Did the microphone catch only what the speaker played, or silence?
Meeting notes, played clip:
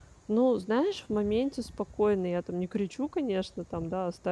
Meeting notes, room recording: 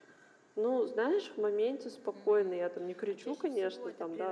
No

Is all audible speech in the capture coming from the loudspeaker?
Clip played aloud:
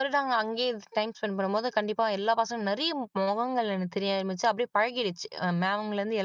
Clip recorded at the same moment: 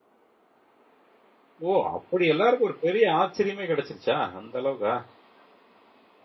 No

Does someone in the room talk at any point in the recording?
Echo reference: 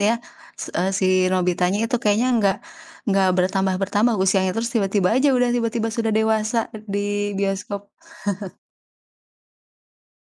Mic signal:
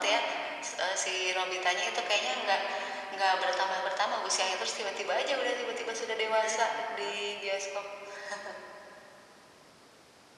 Yes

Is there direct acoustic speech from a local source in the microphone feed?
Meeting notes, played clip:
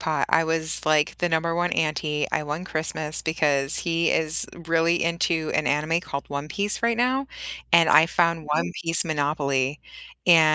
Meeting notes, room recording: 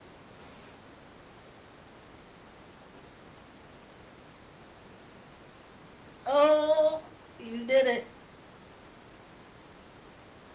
Yes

